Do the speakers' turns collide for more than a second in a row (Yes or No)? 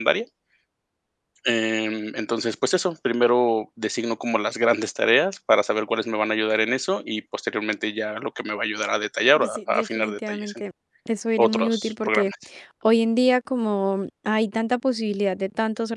Yes